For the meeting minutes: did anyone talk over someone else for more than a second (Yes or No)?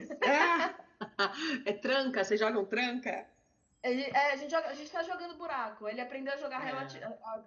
No